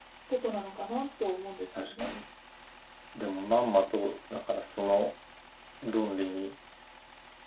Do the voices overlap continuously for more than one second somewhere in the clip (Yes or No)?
No